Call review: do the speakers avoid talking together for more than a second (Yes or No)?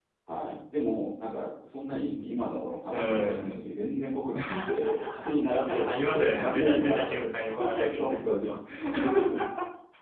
No